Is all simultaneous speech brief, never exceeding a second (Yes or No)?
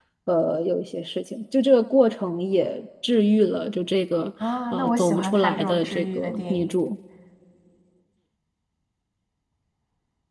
No